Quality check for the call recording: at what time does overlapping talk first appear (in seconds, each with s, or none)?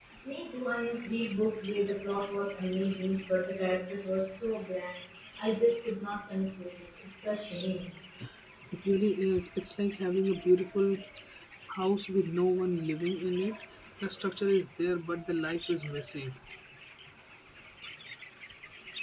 none